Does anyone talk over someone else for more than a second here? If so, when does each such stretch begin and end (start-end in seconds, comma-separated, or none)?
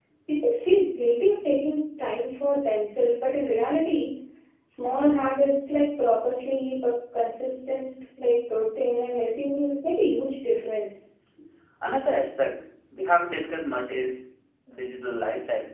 none